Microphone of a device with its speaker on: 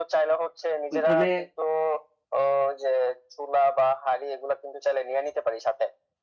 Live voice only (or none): ওইখানে